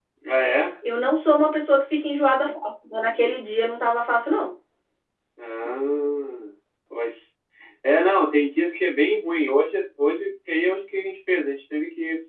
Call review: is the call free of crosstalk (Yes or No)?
Yes